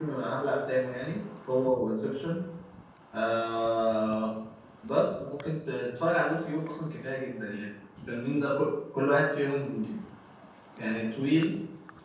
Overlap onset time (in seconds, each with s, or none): none